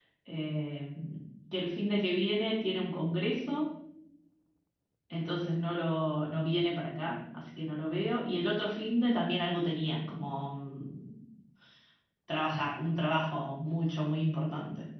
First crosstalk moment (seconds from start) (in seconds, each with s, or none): none